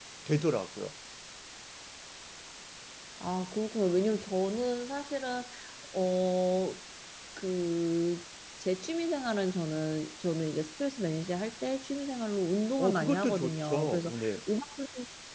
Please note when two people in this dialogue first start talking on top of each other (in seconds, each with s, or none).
12.8 s